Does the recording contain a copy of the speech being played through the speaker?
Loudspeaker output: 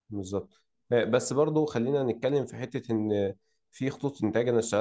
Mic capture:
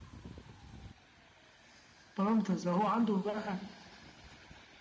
No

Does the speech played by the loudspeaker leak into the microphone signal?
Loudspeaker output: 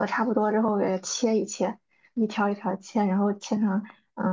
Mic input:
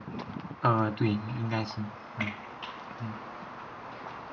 No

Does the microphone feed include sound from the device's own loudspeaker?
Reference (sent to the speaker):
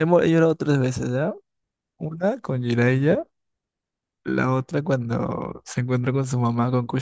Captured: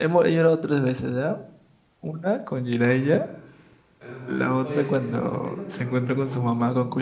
Yes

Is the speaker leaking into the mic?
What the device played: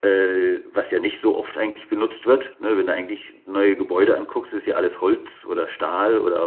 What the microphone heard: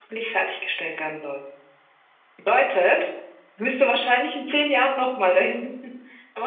No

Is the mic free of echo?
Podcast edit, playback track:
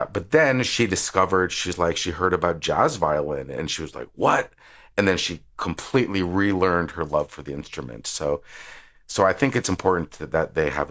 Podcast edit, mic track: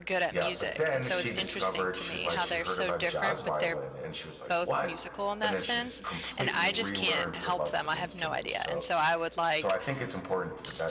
No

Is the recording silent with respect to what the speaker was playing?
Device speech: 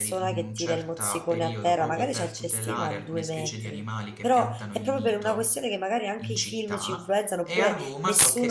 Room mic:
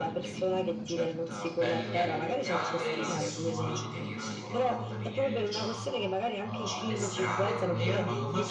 No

